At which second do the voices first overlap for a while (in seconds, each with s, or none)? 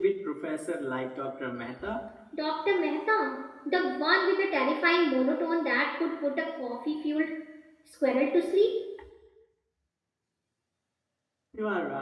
none